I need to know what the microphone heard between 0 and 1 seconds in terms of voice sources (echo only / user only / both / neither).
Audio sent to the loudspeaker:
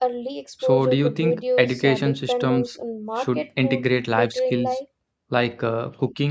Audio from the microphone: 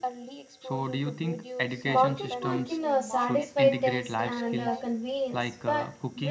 echo only